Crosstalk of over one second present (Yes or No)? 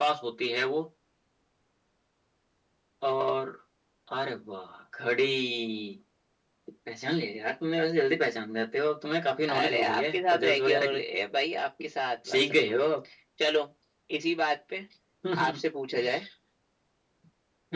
Yes